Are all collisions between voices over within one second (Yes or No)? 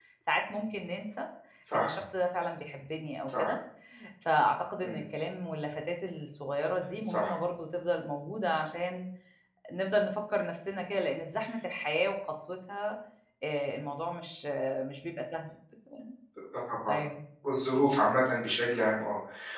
Yes